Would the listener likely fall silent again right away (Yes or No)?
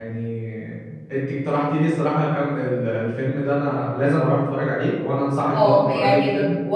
No